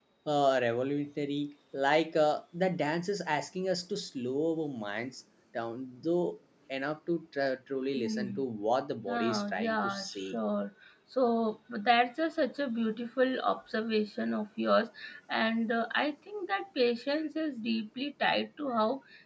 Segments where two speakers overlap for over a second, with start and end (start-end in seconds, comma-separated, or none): 9.2-10.4